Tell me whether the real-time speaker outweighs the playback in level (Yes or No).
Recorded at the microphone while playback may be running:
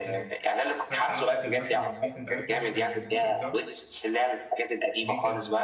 No